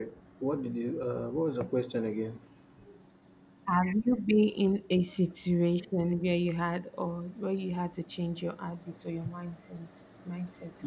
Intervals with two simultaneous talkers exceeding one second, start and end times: none

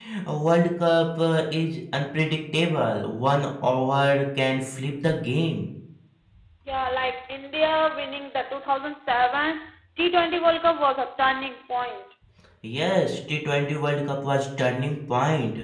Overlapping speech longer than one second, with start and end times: none

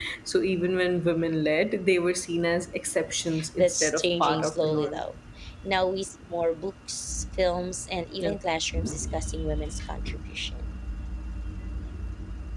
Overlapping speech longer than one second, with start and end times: 3.6-5.0

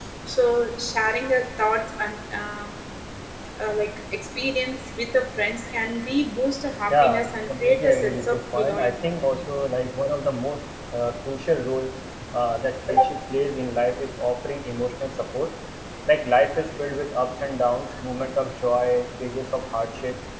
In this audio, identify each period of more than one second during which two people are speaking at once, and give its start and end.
6.9-9.0

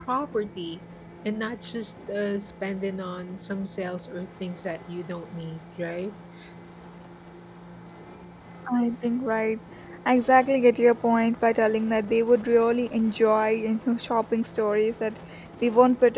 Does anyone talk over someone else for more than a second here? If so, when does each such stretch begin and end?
none

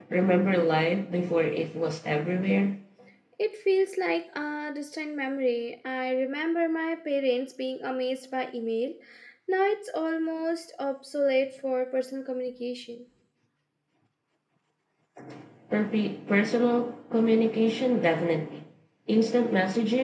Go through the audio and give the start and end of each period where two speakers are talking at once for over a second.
none

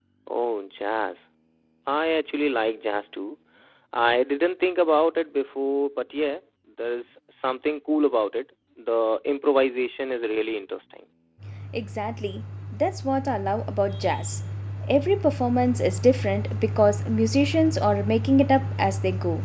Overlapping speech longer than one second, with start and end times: none

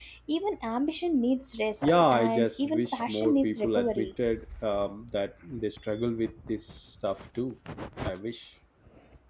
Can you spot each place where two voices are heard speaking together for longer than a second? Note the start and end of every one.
1.8-4.1

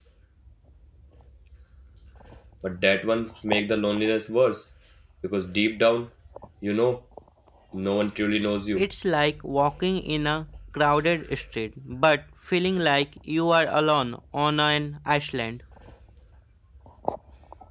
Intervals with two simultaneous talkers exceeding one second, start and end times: none

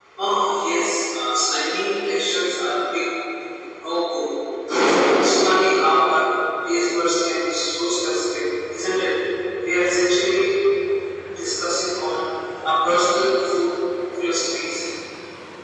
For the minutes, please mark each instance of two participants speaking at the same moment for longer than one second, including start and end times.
none

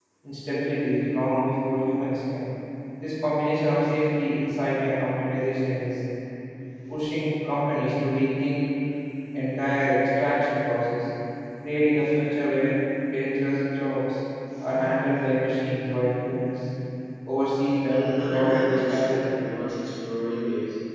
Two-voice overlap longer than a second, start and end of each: 17.9-19.3

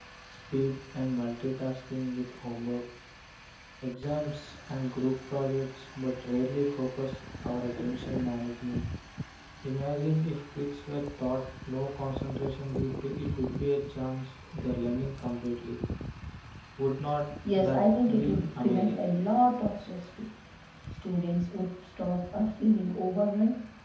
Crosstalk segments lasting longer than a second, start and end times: 17.6-19.1

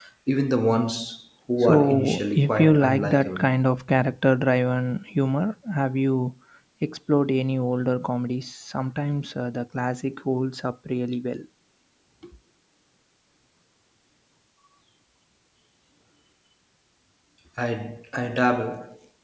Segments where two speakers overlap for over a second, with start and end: 1.6-3.5

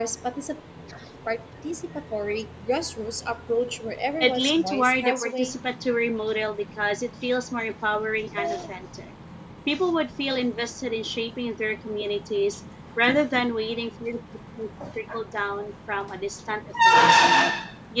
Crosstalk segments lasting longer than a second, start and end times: 4.2-5.5

